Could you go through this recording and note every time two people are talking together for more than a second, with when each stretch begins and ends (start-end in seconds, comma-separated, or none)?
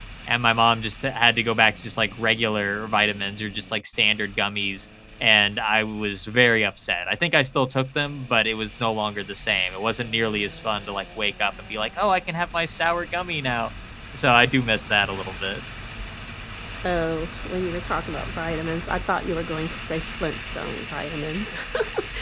none